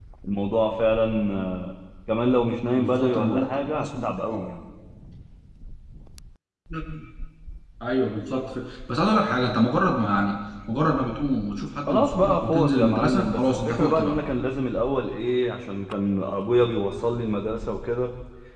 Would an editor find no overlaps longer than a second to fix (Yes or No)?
No